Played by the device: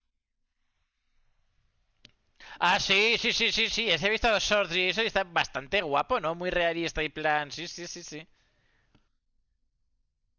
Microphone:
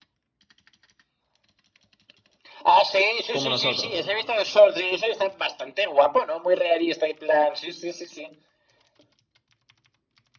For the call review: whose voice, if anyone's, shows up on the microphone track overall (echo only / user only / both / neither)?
both